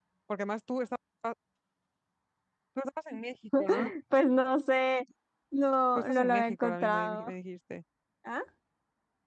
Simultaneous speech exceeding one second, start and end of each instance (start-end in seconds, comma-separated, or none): 6.0-7.2